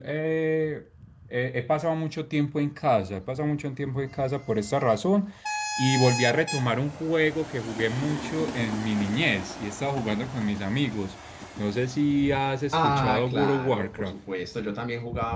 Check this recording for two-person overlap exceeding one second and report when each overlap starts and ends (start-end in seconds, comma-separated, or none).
12.7-14.2